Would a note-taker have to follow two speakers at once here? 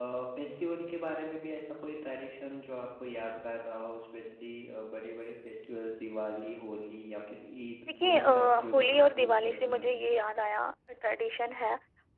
Yes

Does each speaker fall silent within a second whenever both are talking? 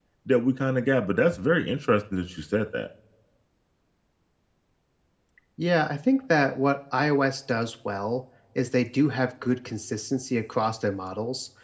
Yes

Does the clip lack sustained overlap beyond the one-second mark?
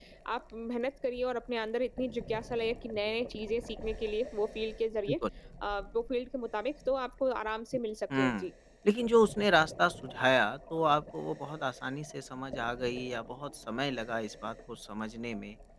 Yes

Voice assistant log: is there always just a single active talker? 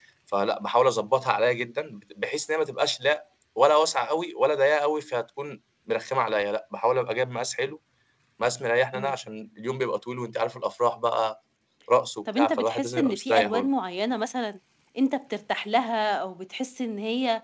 No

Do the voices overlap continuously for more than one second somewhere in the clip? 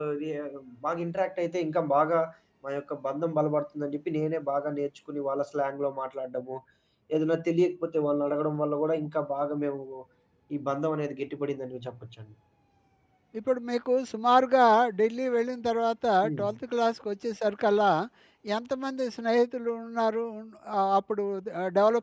No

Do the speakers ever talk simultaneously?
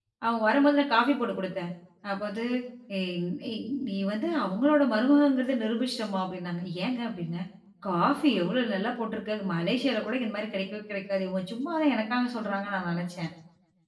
No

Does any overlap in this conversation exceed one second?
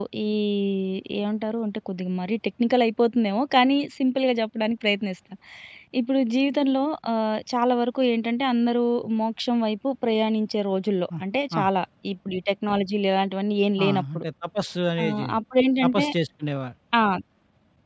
No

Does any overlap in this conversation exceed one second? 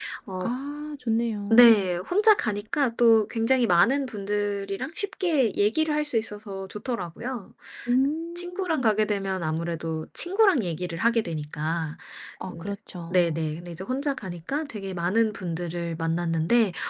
No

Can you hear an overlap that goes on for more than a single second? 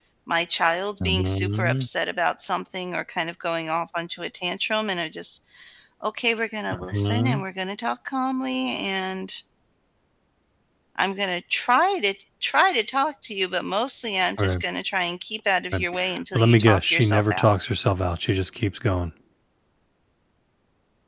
Yes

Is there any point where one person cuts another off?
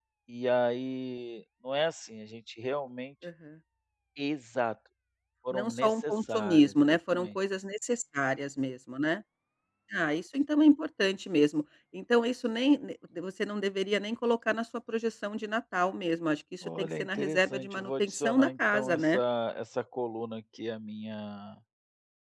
Yes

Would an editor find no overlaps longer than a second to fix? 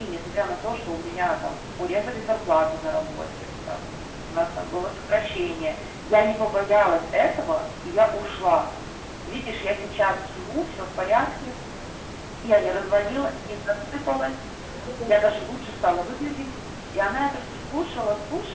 Yes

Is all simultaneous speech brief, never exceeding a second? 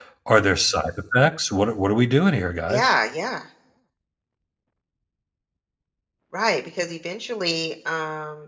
Yes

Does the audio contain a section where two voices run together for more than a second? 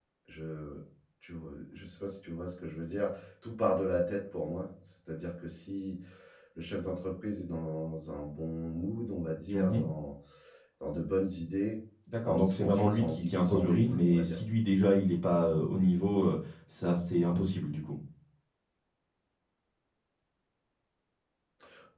Yes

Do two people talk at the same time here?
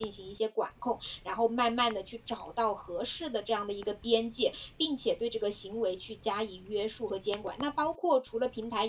No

